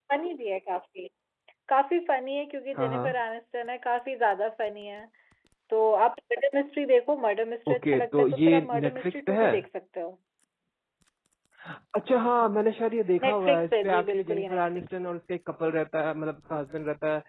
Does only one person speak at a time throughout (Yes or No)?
No